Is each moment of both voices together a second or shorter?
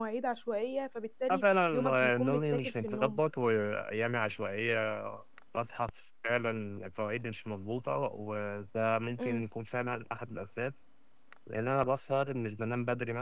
No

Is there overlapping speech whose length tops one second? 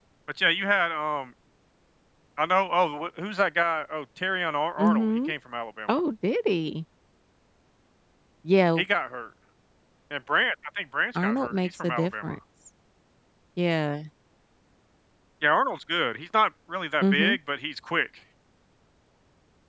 Yes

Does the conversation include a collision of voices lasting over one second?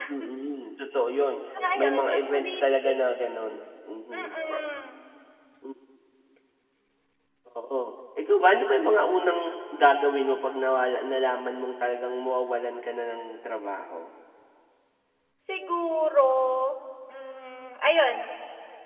Yes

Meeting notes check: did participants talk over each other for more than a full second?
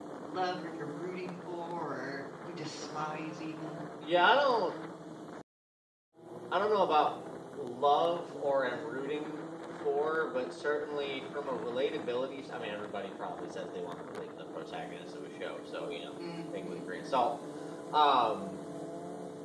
No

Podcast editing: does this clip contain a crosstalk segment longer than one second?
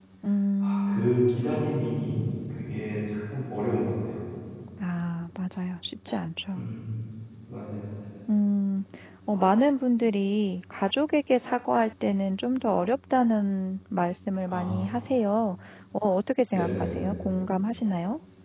No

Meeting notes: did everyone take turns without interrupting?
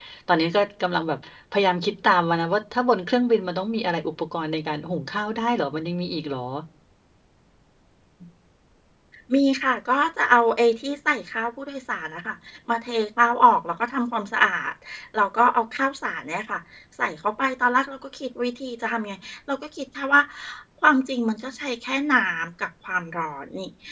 Yes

